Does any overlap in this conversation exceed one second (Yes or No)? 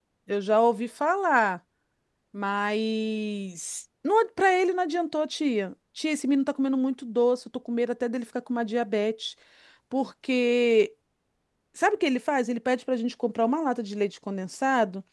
No